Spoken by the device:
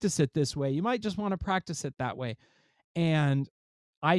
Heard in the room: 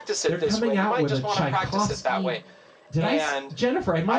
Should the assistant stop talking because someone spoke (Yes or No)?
Yes